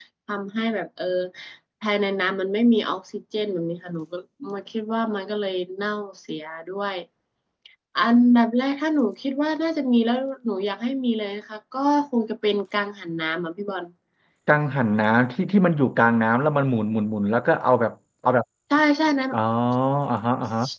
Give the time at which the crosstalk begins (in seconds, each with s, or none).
none